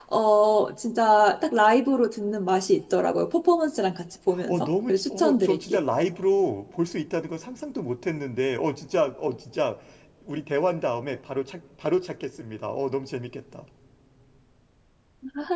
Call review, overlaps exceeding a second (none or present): present